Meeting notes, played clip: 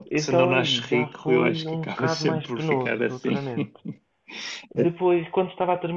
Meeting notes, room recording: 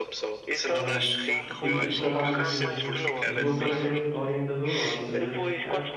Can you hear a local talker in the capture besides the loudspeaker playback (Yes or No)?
Yes